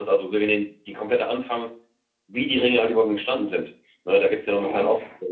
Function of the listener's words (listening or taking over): listening